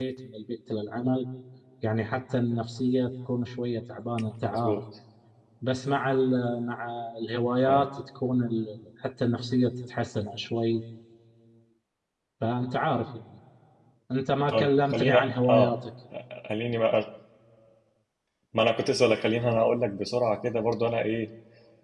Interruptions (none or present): present